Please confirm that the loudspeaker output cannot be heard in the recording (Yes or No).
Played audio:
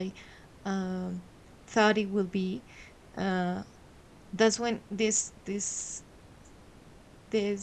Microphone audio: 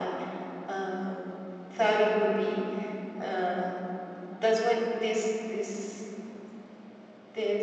No